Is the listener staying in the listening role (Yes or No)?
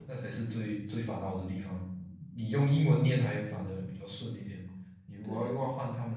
Yes